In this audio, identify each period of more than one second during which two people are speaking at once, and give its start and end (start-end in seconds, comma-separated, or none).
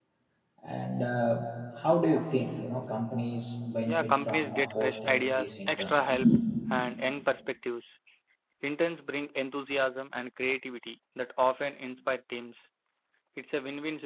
3.8-6.1